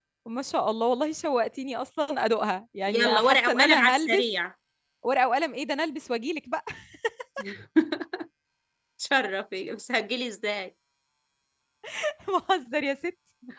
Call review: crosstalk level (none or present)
present